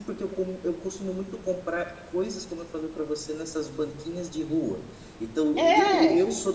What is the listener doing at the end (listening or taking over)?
listening